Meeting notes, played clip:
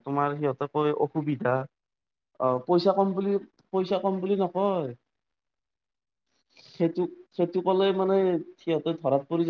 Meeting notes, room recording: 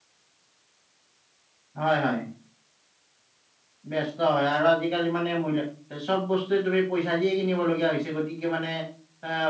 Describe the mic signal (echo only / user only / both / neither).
user only